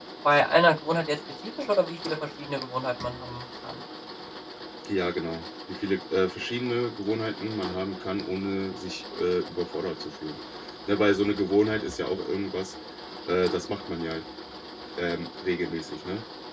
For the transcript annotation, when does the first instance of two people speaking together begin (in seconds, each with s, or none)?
none